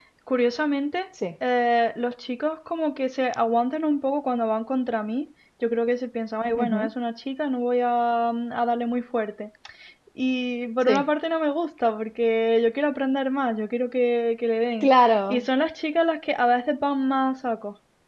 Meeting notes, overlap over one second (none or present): none